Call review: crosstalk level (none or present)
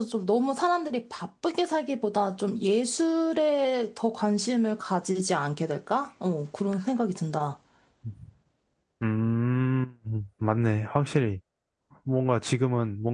none